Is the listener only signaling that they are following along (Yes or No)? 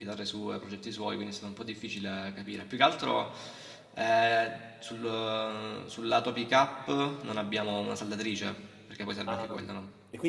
No